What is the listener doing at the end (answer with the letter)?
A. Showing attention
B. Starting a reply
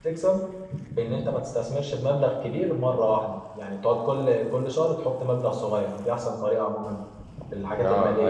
B